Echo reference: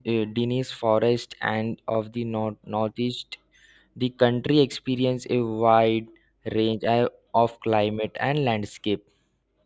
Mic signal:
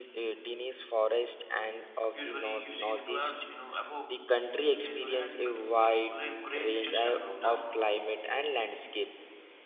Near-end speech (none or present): present